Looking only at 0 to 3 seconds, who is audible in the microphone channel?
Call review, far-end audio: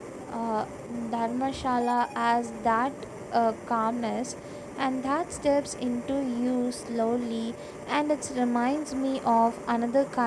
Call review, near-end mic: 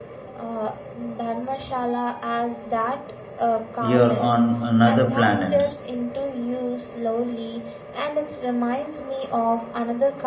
echo only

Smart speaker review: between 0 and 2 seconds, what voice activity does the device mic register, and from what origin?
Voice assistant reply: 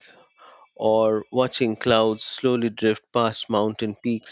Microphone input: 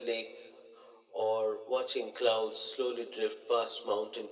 echo only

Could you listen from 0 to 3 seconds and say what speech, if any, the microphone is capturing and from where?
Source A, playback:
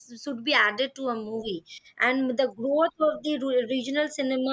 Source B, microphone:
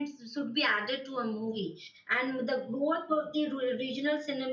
echo only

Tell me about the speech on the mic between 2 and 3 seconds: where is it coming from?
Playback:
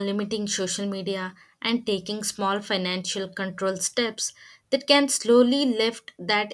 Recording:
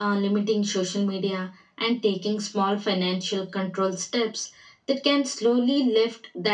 echo only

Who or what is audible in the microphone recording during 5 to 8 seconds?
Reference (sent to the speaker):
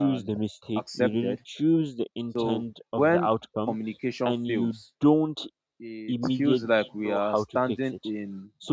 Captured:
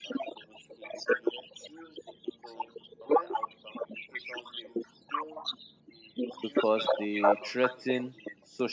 both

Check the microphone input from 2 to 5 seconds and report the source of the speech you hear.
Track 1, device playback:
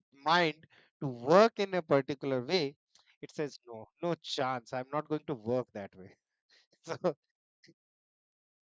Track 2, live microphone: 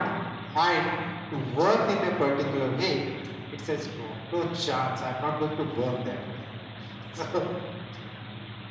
echo only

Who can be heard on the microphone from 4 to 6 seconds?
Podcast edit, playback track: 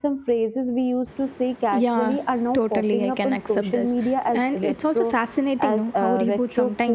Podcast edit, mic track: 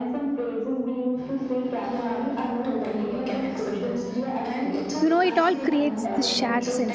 both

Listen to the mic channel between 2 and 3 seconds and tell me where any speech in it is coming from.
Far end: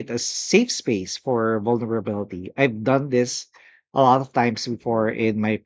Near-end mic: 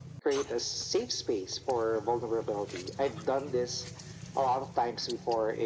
echo only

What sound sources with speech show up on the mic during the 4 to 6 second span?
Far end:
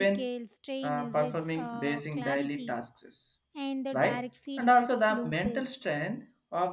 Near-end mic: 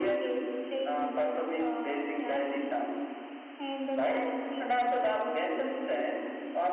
echo only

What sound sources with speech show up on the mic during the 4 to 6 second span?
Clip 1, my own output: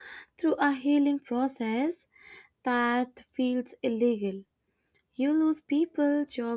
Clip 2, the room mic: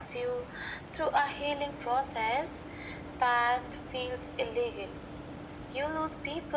echo only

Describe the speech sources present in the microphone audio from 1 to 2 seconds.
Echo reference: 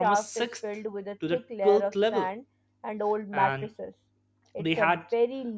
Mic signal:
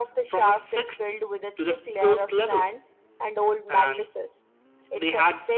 echo only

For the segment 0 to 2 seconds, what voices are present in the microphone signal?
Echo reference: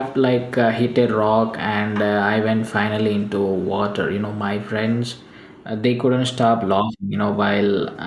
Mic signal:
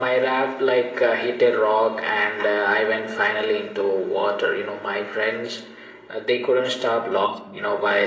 echo only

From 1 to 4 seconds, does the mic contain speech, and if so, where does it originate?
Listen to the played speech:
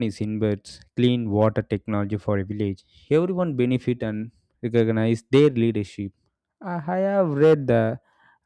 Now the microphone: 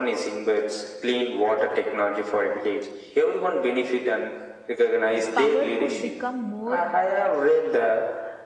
echo only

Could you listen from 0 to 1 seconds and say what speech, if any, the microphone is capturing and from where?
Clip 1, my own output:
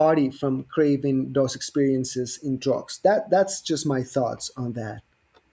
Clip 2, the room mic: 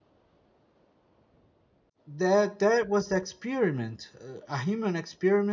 neither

